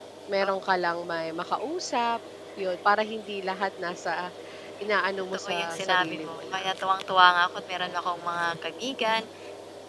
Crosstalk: present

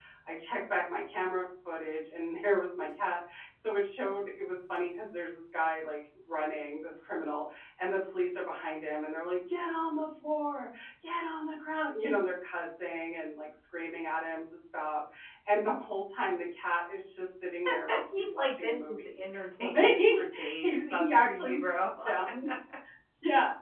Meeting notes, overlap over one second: present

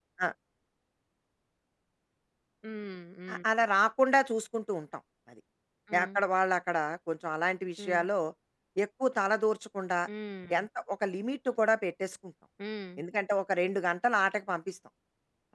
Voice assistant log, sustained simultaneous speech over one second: none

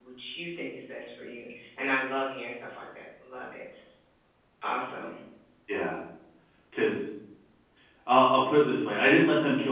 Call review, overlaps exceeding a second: none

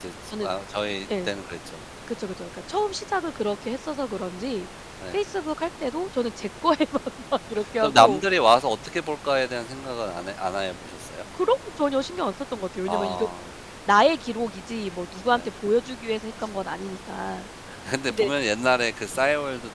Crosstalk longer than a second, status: none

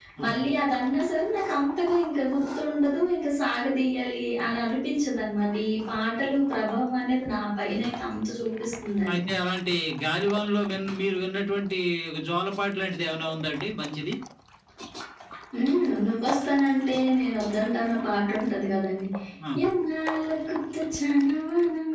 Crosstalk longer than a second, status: none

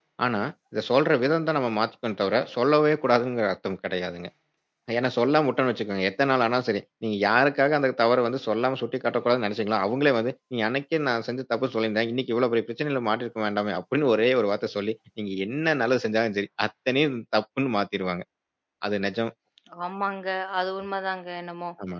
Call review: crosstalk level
none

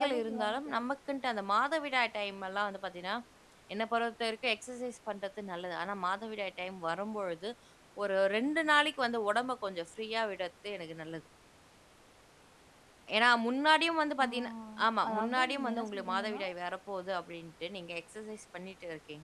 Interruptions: present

